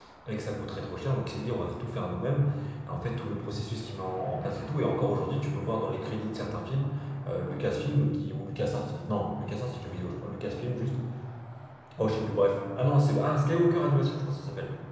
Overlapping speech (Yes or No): No